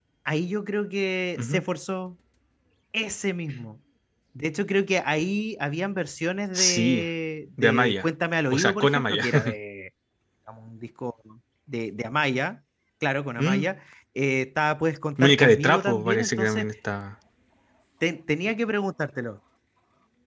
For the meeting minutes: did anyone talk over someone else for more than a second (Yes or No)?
Yes